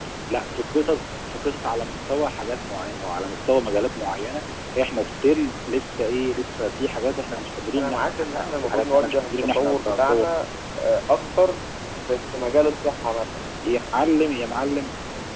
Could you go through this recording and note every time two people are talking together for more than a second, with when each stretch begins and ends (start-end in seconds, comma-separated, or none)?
7.8-10.2